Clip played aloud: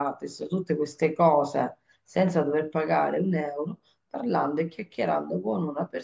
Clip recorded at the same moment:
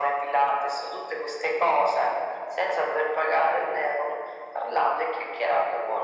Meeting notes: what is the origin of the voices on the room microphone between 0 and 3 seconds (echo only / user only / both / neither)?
echo only